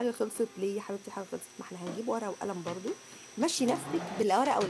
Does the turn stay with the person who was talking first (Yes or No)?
Yes